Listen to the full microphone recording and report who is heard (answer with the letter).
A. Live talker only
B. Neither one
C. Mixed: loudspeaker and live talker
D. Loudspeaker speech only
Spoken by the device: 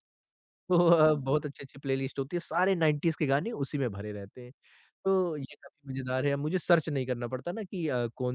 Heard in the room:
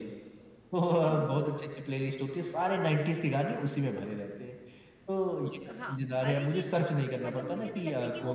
C